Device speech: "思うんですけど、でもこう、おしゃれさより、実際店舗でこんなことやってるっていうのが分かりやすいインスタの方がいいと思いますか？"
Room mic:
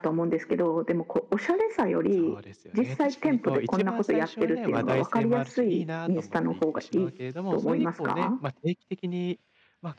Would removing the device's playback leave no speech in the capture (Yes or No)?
No